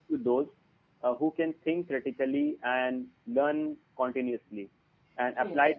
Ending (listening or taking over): listening